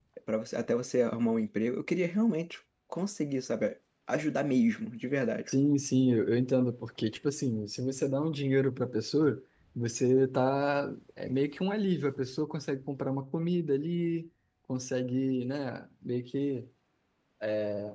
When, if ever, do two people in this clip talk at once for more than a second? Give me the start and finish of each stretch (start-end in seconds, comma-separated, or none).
none